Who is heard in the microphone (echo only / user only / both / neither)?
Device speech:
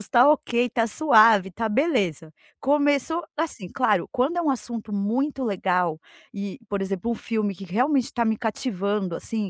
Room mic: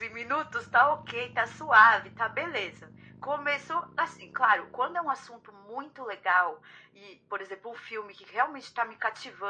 echo only